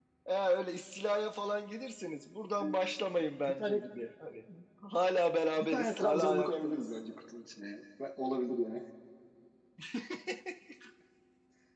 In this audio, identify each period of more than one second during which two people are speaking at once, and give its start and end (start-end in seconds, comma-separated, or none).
5.6-6.8